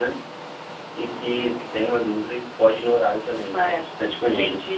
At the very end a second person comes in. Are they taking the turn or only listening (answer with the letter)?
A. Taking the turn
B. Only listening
A